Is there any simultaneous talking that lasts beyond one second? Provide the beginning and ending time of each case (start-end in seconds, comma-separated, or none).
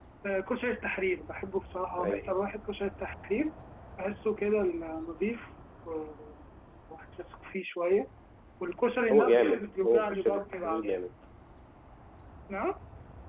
9.1-11.0